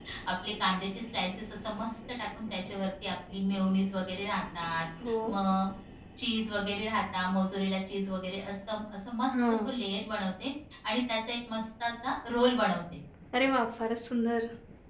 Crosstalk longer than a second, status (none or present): none